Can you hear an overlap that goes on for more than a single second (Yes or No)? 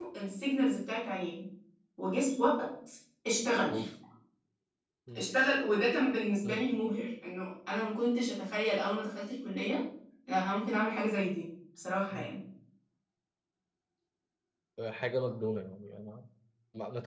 No